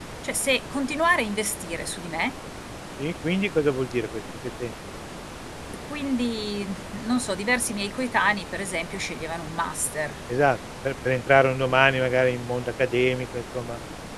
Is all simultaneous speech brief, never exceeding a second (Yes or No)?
Yes